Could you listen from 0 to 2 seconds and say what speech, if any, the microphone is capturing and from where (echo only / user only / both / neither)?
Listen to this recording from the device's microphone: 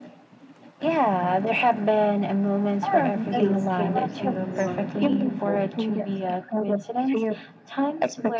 echo only